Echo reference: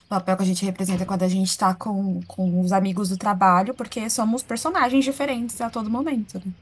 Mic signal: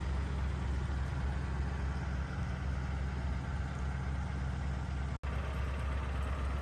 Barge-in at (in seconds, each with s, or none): none